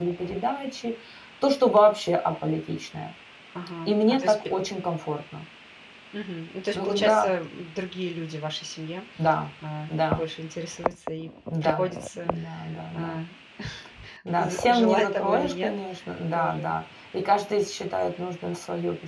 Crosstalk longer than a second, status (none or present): present